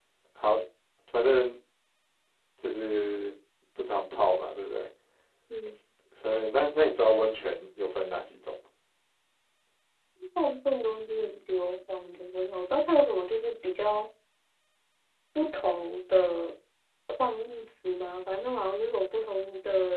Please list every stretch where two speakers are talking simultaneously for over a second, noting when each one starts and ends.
none

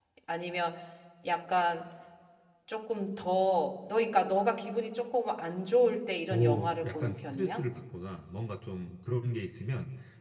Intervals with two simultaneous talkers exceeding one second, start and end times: 6.3-7.6

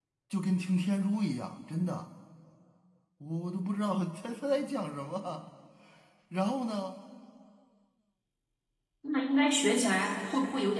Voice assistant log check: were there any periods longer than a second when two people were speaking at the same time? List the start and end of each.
none

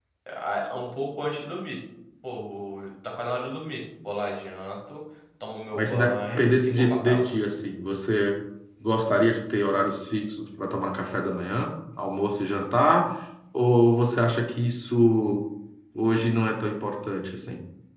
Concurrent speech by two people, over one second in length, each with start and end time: 5.8-7.3

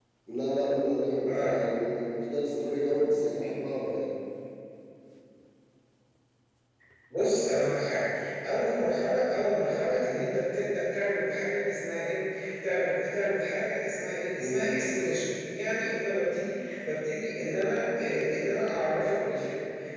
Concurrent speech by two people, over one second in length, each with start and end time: none

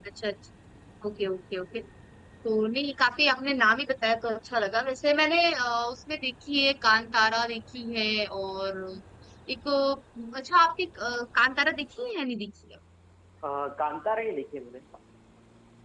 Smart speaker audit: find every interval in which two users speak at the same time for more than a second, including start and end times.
none

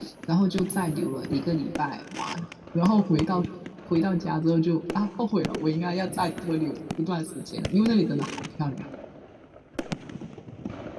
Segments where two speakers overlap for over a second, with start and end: none

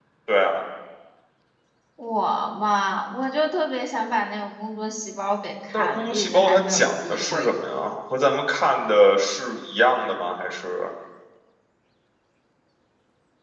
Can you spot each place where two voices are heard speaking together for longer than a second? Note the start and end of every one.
5.7-7.5

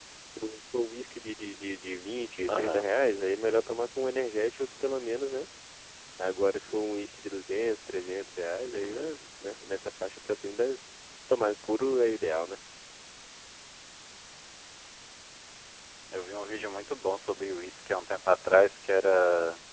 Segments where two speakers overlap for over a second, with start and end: none

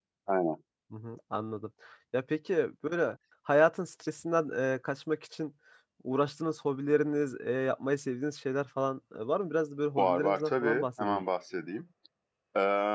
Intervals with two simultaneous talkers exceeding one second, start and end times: 10.0-11.2

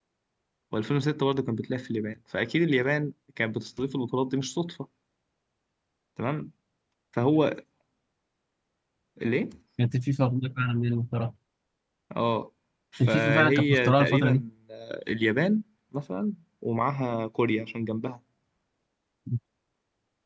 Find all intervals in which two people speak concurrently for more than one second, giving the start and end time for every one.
13.1-14.4

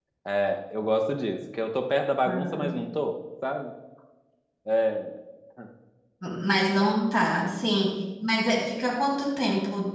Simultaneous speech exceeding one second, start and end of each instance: none

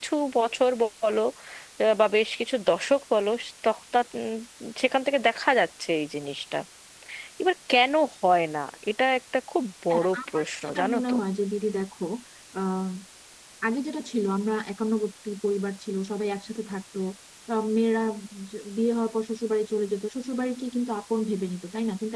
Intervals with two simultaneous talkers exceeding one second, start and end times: 9.9-11.2

